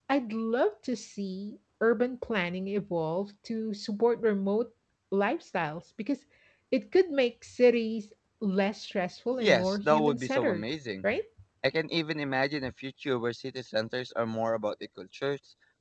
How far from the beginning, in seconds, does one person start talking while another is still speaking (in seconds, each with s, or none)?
9.3 s